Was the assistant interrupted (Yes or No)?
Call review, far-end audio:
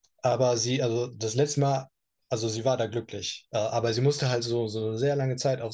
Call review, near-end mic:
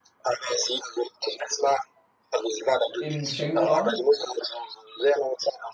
Yes